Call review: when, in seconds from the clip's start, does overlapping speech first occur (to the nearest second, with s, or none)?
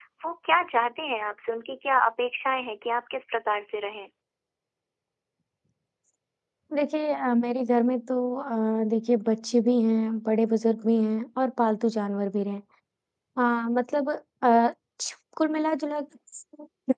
none